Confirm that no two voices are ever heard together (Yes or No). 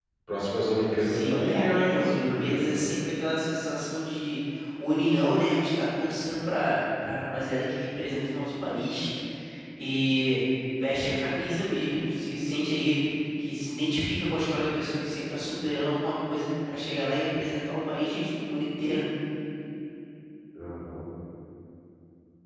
No